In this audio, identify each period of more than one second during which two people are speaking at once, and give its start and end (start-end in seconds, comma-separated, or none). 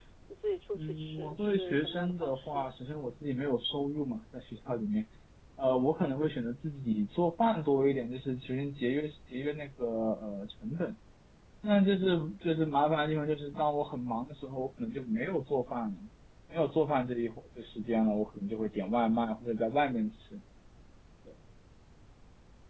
0.7-2.6